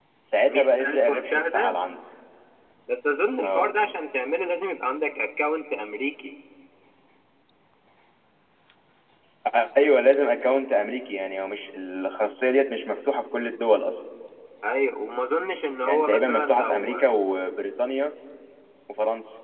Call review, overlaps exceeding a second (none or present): present